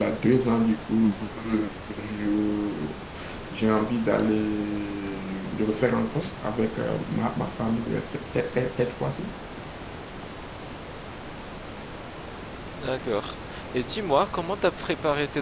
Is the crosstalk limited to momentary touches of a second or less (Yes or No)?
Yes